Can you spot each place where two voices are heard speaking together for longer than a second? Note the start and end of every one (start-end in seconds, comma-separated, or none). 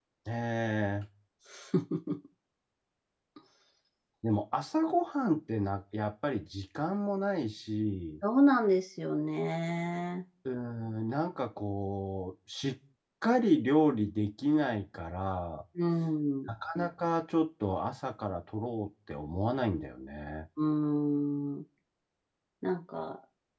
none